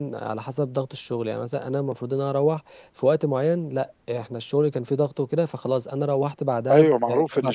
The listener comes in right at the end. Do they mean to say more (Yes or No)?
Yes